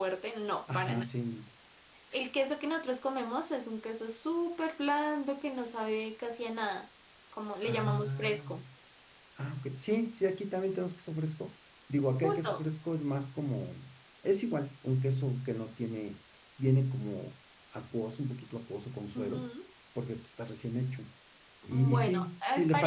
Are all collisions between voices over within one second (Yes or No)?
No